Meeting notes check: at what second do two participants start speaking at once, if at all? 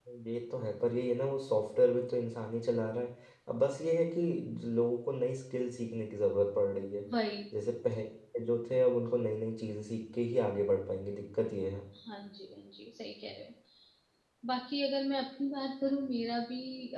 none

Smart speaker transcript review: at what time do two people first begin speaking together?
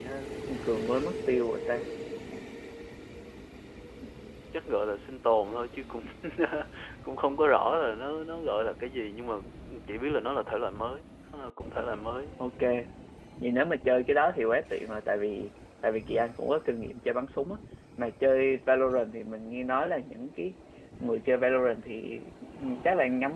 none

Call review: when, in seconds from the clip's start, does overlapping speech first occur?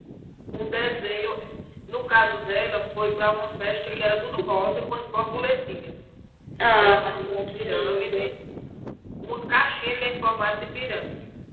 7 s

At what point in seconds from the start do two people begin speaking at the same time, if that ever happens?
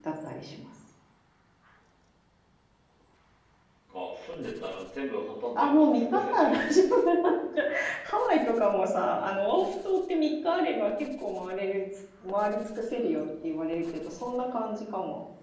6 s

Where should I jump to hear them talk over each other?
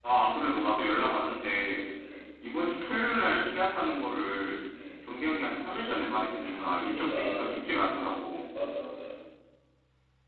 6 s

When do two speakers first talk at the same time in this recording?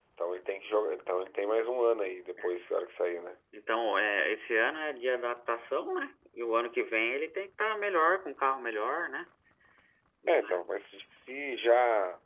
none

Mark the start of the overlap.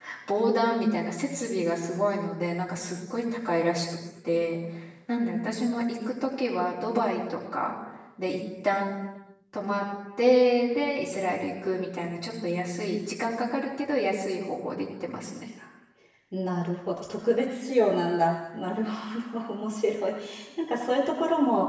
none

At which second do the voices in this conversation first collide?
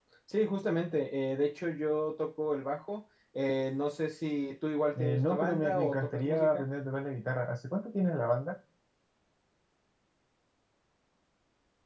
5 s

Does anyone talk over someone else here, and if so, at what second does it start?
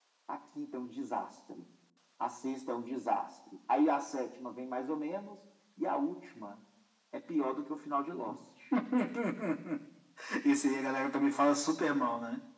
none

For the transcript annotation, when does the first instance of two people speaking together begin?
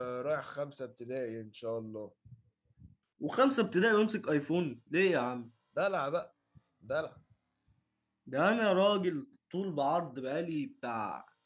none

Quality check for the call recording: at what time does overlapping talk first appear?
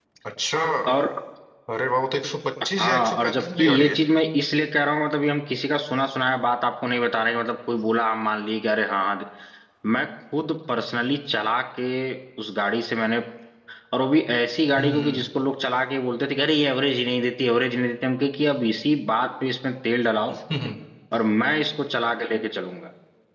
3 s

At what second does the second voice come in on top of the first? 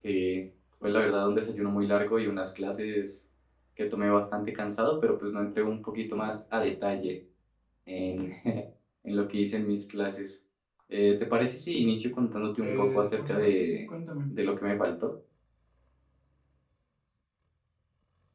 13 s

